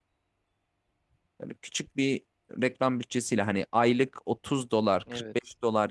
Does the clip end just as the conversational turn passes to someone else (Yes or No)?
No